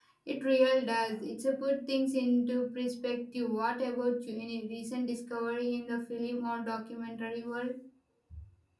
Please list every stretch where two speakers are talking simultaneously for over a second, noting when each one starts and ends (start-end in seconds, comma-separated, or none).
none